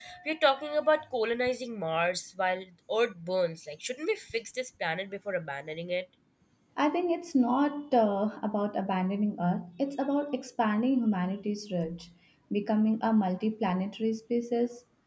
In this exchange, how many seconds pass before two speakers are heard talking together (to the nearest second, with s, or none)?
none